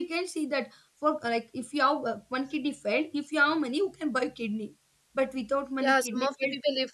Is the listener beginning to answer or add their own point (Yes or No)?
Yes